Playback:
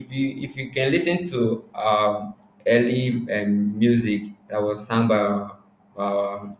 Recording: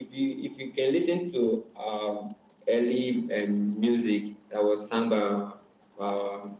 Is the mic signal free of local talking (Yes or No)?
Yes